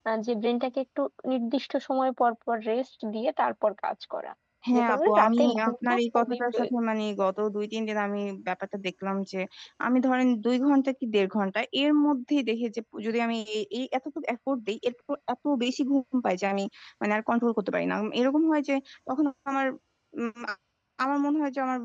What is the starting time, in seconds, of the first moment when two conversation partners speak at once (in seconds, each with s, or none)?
4.8 s